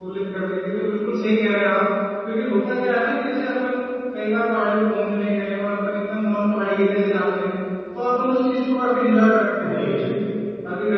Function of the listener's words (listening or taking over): listening